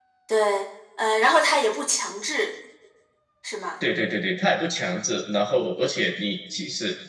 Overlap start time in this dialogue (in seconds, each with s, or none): none